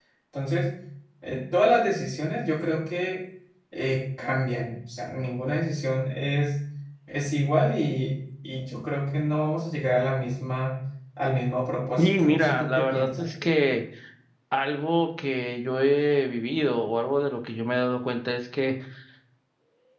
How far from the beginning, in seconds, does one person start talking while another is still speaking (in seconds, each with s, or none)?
12.0 s